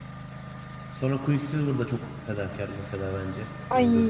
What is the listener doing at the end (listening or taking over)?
taking over